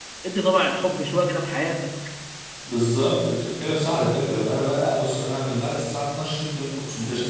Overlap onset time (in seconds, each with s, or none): none